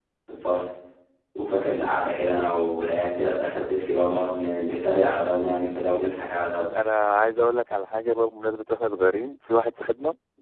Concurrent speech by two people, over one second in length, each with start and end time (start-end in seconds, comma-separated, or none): none